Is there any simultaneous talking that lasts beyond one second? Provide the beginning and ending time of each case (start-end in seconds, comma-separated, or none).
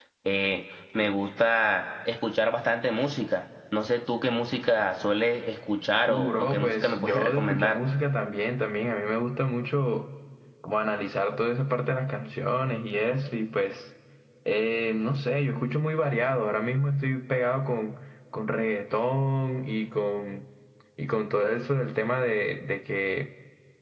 6.1-7.8